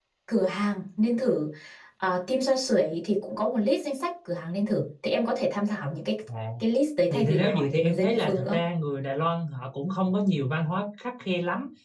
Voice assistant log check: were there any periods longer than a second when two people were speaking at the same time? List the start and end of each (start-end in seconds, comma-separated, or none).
7.1-8.6